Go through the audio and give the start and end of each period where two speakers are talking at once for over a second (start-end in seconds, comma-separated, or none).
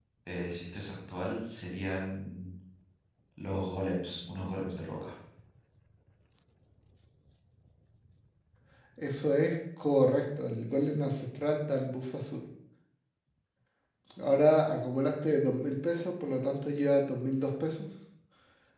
none